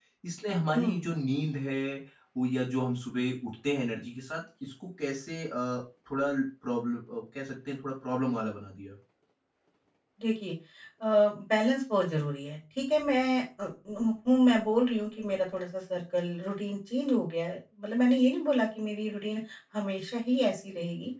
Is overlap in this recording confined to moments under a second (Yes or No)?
Yes